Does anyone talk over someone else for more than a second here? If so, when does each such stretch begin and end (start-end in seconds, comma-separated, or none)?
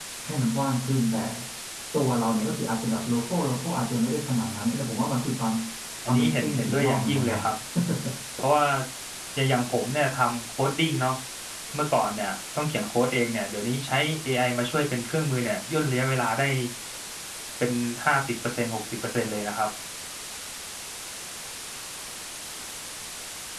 6.1-7.4